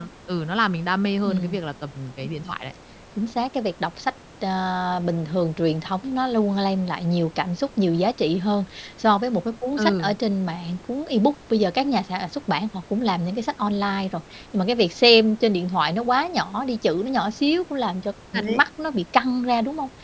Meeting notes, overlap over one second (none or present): none